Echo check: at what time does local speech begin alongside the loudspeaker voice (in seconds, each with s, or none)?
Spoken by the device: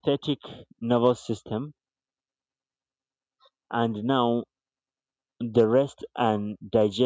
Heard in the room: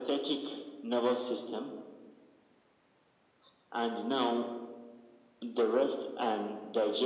none